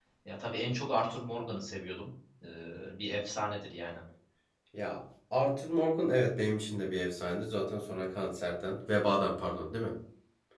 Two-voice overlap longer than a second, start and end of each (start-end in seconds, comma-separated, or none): none